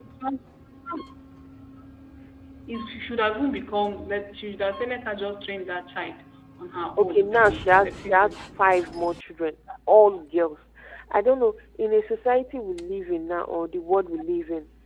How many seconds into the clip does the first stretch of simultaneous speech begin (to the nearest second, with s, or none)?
7 s